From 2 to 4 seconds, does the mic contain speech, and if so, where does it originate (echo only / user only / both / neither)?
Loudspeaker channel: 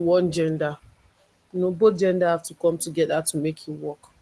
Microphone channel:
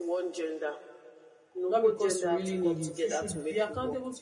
both